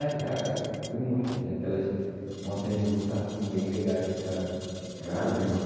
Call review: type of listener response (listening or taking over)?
taking over